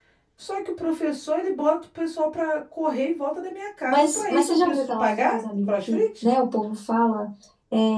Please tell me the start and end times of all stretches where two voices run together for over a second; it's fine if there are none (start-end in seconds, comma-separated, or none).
3.9-6.2